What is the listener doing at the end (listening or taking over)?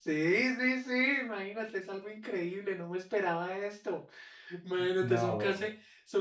listening